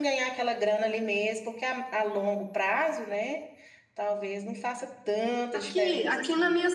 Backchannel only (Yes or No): No